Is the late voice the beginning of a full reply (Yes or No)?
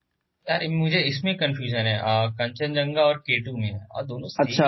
Yes